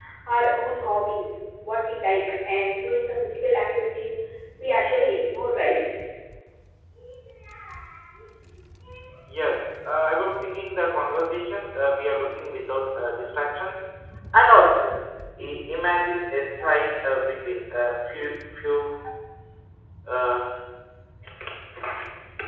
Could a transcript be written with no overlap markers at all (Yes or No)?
Yes